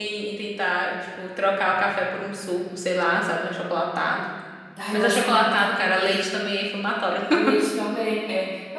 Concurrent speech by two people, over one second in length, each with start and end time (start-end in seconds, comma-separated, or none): 4.9-6.2